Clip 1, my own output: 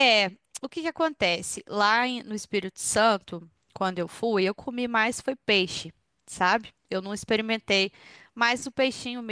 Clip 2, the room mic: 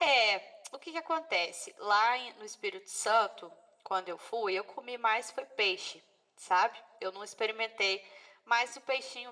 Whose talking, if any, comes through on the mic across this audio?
echo only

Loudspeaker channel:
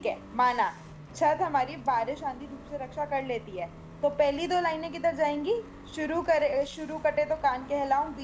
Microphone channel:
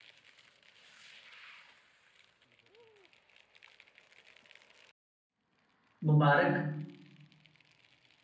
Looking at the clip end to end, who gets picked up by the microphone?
user only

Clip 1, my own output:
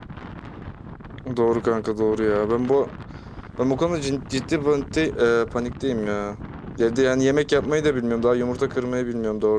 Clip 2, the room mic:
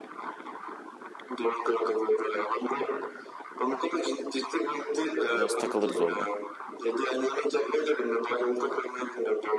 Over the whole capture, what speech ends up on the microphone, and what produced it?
both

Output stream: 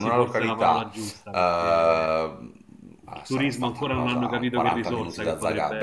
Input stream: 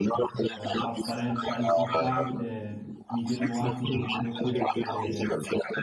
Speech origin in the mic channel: both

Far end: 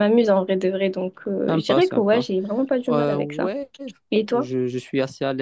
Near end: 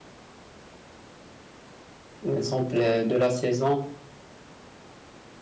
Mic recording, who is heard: user only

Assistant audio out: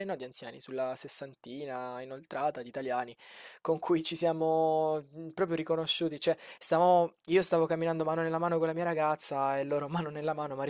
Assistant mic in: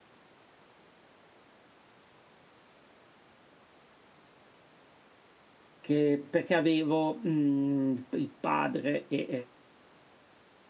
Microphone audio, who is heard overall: user only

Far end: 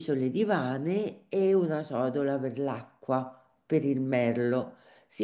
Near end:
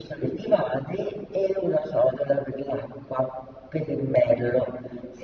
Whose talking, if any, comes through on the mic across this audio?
echo only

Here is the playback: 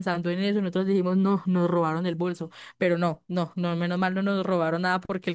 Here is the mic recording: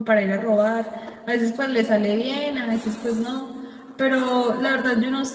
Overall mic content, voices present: user only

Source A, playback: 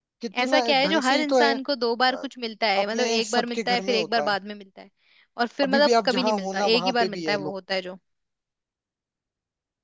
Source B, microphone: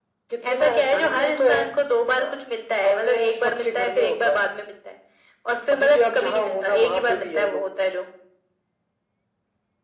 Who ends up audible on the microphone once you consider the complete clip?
echo only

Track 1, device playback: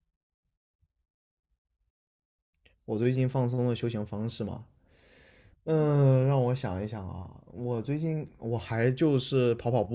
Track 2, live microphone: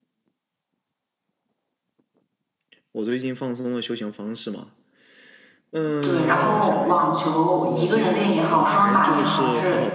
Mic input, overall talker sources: both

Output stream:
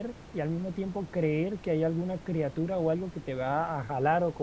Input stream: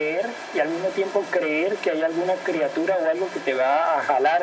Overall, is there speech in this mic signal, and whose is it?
echo only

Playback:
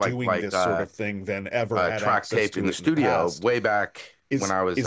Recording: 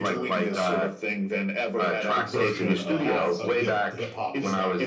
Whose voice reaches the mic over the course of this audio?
both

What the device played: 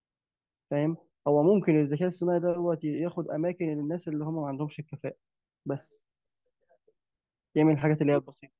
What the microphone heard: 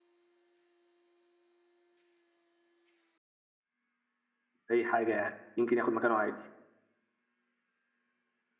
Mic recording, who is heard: user only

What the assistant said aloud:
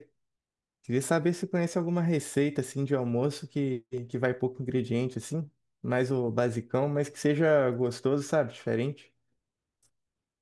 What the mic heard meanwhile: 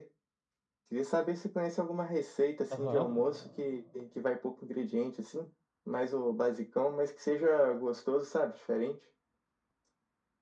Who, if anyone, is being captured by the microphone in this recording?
both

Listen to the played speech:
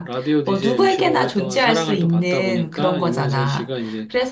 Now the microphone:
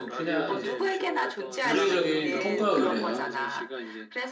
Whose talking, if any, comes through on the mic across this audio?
both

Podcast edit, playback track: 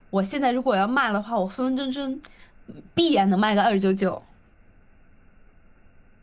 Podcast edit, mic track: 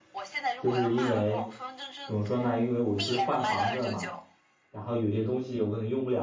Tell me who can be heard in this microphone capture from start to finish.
both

